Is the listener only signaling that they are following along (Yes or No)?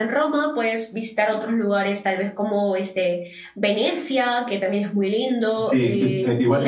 No